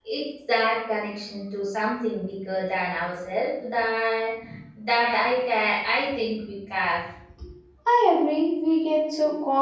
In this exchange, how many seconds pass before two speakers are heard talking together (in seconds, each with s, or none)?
none